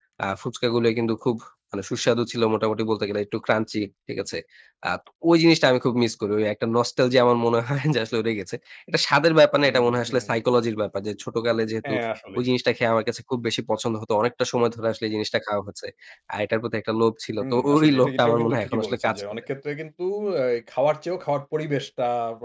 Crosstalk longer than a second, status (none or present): present